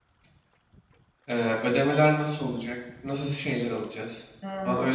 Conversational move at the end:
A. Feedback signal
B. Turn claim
B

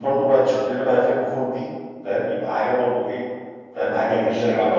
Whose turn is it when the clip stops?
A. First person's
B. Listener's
B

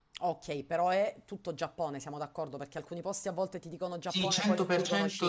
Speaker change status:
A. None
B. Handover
B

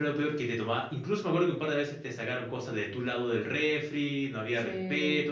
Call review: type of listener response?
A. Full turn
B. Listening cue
B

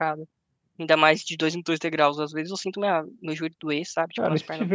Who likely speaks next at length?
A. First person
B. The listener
B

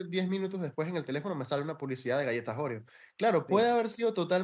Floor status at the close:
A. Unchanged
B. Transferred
A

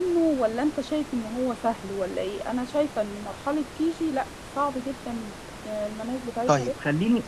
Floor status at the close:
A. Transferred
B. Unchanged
A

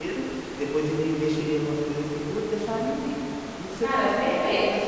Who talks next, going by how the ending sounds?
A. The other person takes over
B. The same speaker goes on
B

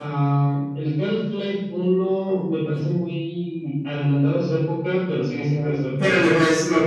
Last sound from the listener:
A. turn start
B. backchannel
A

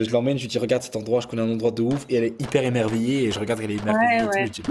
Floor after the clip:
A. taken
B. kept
A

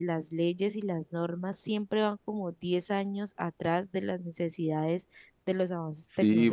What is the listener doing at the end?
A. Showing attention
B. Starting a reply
B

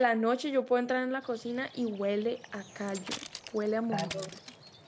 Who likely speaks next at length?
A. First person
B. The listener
B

